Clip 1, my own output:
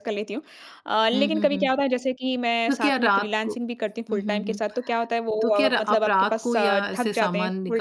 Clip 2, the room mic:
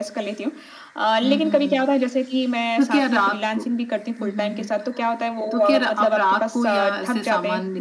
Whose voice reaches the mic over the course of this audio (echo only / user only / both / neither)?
echo only